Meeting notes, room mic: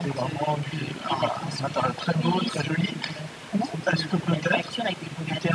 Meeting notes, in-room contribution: none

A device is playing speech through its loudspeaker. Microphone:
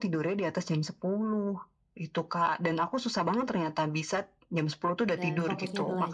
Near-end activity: present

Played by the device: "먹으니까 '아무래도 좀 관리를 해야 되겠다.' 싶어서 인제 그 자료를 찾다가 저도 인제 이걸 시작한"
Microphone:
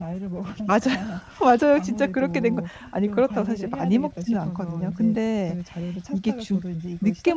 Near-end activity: present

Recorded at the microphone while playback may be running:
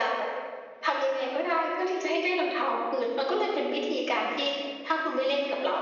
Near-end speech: none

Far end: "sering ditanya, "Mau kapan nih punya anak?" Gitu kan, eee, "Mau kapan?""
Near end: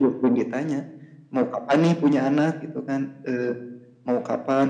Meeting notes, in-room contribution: none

